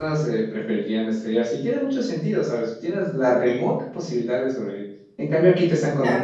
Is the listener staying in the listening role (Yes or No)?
Yes